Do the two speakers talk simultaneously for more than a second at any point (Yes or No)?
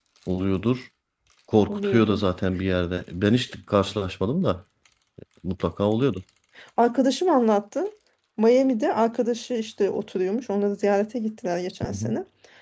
No